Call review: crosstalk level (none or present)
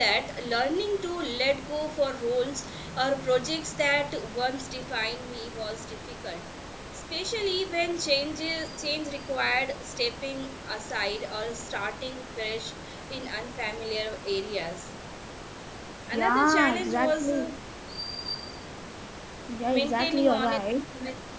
present